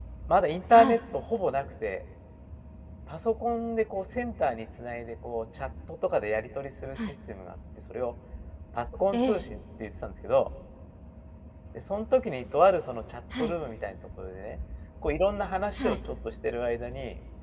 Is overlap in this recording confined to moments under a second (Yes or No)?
Yes